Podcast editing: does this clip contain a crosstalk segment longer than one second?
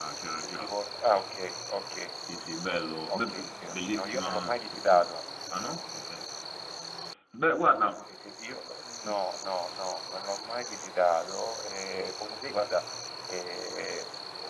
Yes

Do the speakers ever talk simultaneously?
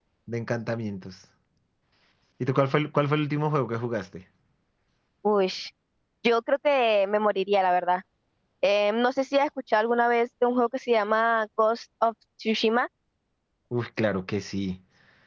No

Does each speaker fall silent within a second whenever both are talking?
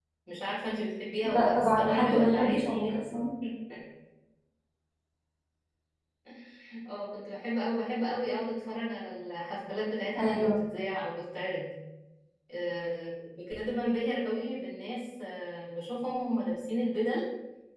No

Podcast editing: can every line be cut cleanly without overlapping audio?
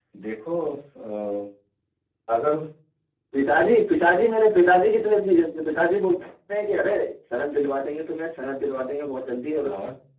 Yes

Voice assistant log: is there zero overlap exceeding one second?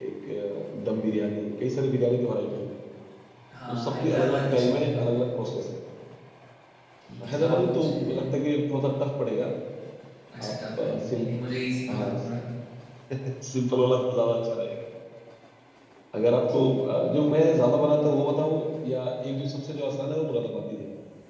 No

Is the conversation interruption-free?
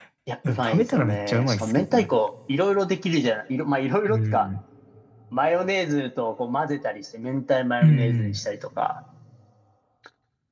No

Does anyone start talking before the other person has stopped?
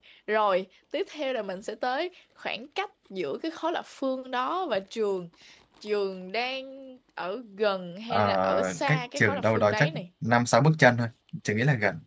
Yes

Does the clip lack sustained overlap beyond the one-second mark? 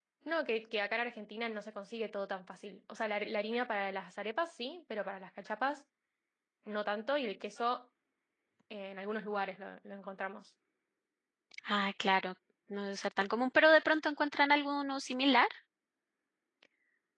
Yes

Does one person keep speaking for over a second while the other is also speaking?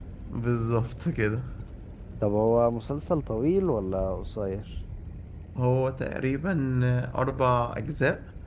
No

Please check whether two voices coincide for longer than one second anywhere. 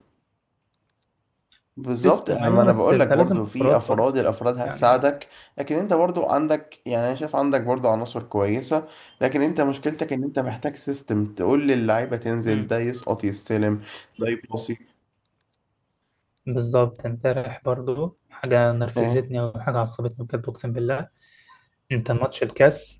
Yes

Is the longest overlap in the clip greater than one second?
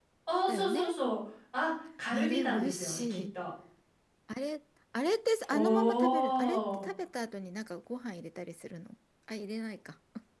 Yes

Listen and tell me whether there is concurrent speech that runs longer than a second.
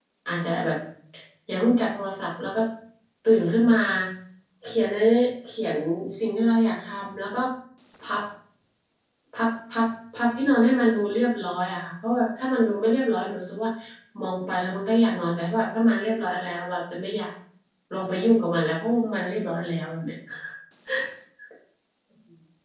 No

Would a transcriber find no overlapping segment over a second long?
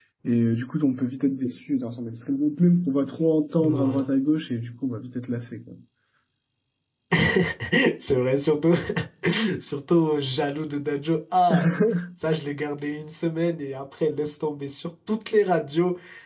Yes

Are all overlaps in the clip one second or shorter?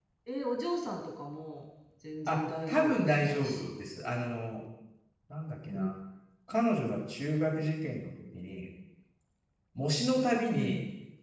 No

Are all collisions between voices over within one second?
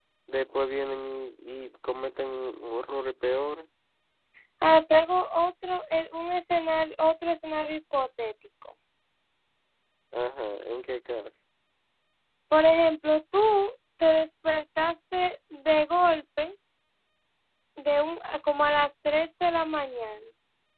Yes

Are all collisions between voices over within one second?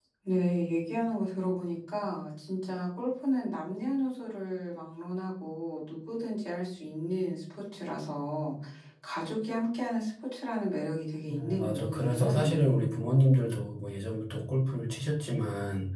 No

